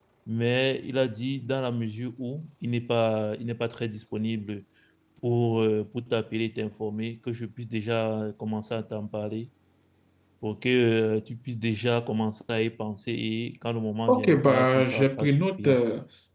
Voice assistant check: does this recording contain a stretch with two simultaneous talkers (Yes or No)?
Yes